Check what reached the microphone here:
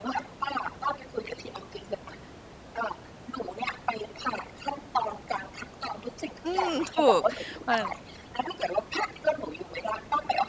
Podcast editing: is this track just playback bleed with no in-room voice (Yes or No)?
No